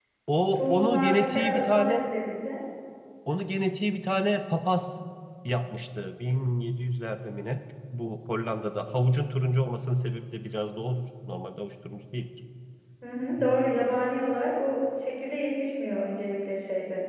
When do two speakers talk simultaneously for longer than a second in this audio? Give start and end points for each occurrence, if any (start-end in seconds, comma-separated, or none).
0.6-2.0